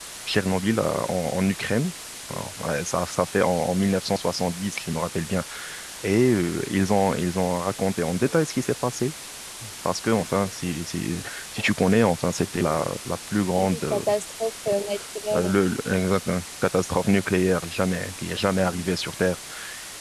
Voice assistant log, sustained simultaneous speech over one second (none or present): none